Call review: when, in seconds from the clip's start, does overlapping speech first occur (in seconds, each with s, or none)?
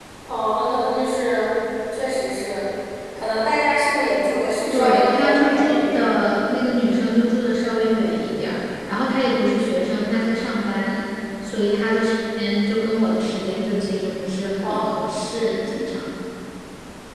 4.7 s